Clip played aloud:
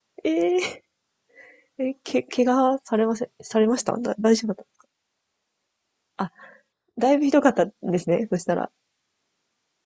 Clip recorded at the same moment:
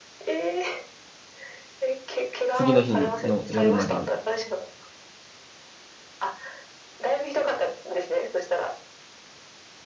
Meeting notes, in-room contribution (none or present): present